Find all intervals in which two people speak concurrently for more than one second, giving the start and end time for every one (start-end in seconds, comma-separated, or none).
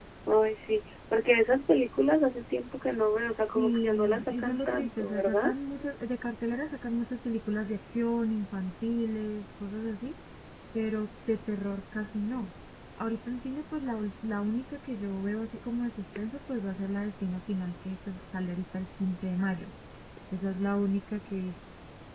3.3-5.5